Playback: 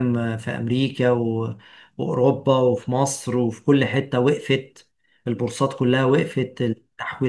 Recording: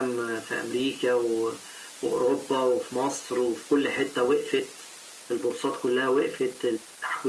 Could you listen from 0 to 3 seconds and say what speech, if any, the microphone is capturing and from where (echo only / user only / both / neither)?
echo only